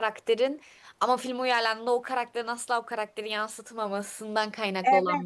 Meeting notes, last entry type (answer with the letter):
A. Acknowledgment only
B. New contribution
B